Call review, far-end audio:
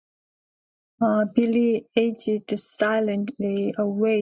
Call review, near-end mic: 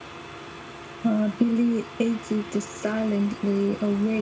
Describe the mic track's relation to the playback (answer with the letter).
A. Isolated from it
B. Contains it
B